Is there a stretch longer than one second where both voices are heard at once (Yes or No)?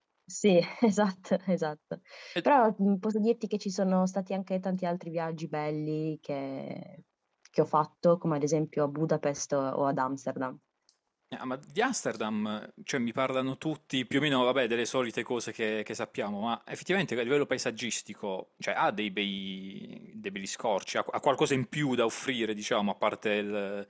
No